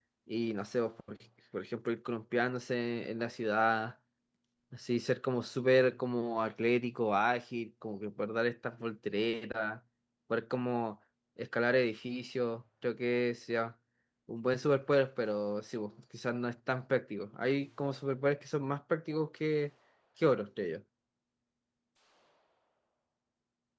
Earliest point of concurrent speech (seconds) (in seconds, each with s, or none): none